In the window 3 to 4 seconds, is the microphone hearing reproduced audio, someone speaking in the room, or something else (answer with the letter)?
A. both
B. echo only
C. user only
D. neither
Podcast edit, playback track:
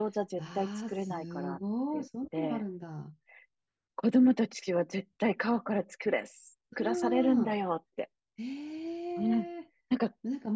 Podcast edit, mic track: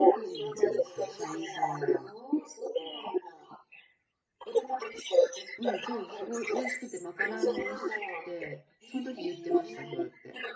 B